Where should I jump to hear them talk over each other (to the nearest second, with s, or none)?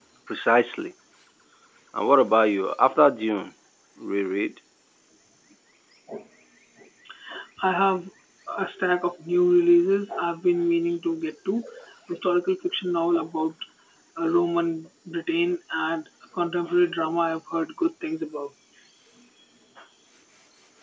none